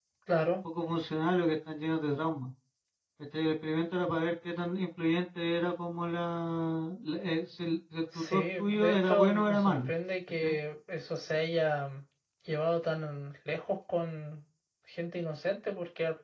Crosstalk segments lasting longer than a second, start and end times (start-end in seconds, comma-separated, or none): 8.2-9.9